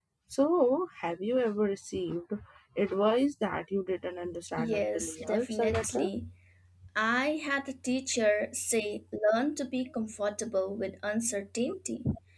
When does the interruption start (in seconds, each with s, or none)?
4.6 s